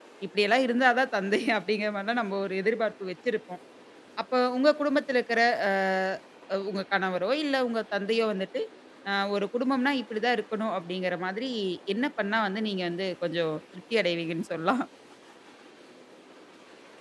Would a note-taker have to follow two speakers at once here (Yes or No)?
No